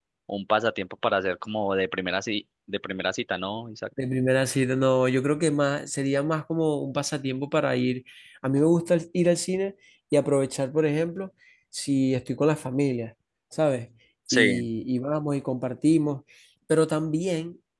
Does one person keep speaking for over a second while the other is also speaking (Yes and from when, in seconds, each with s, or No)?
No